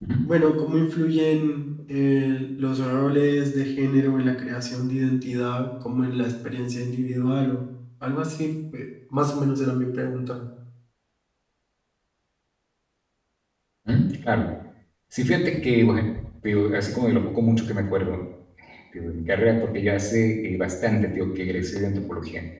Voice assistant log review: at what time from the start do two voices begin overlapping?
none

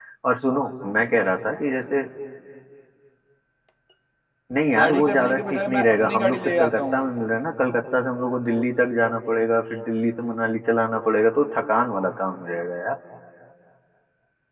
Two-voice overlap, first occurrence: 4.8 s

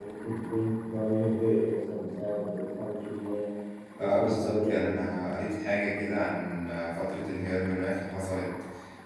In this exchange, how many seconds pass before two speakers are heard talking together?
4.0 s

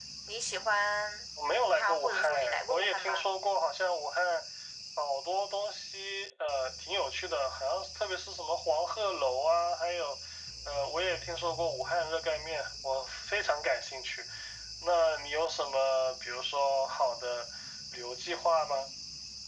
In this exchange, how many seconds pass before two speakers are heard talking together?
1.6 s

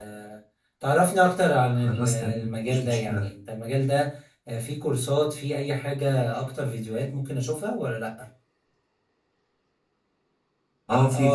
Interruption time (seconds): 1.8 s

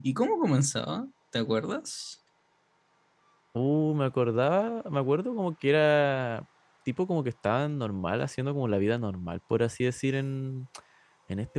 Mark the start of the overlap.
none

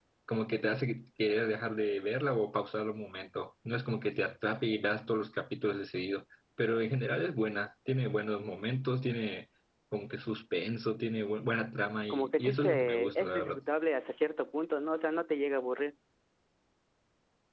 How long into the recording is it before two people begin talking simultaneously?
12.1 s

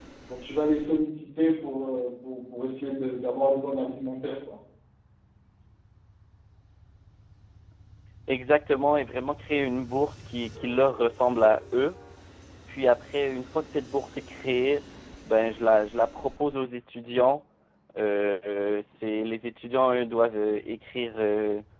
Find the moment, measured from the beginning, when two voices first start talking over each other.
none

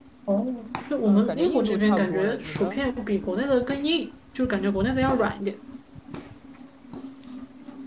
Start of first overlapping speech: 1.1 s

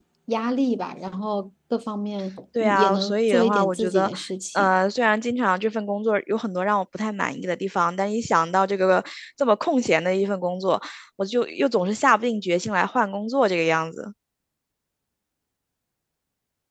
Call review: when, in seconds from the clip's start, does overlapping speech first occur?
2.6 s

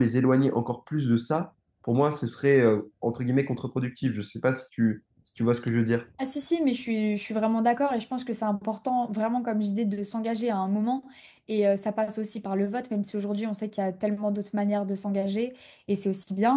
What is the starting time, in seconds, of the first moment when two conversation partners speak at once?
none

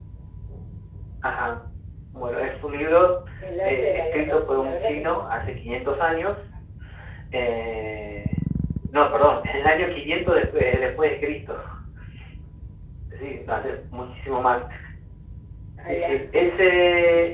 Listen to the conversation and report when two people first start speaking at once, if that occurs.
3.6 s

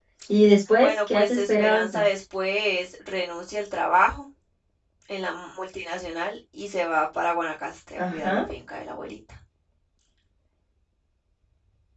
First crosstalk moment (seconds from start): 0.8 s

